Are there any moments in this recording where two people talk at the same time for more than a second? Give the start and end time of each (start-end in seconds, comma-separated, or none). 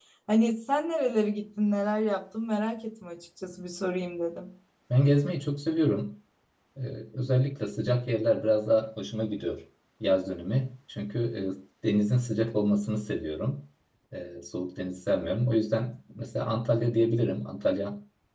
none